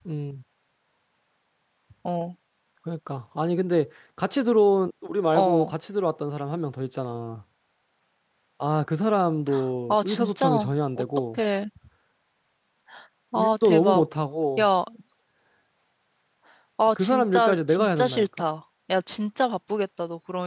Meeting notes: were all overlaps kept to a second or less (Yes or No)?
No